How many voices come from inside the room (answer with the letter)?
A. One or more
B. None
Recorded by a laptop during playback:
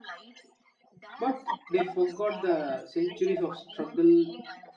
A